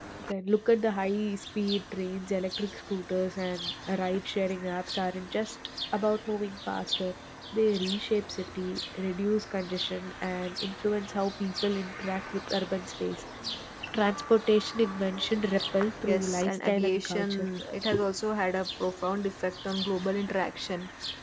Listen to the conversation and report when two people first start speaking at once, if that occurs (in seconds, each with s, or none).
16.0 s